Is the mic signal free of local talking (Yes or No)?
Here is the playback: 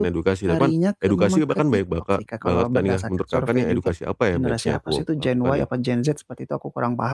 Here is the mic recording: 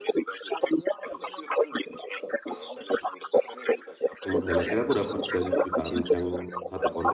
No